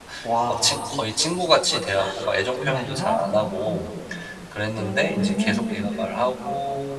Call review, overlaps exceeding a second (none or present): present